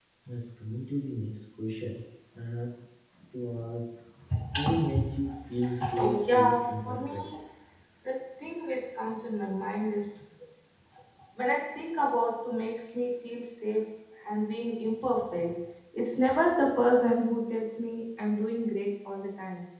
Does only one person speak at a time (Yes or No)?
No